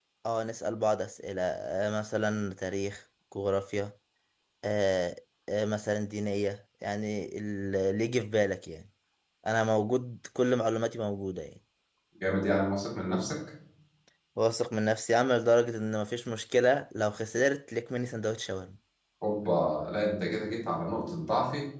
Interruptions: none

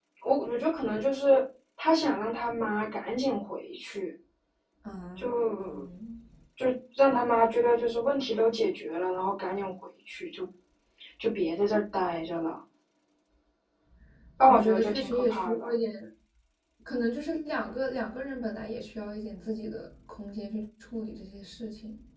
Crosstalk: present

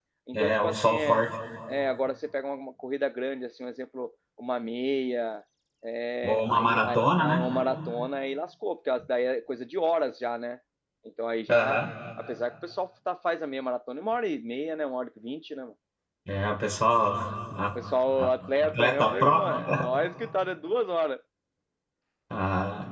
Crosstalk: present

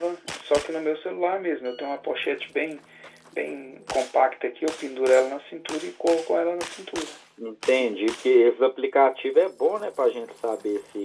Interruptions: none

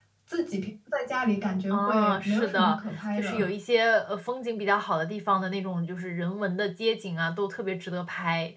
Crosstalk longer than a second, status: present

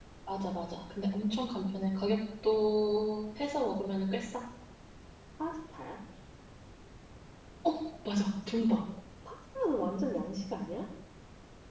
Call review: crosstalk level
none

